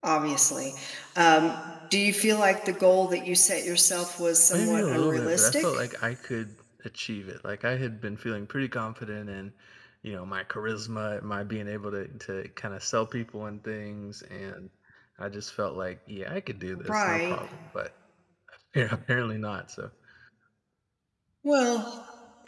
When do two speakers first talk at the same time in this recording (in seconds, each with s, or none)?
4.5 s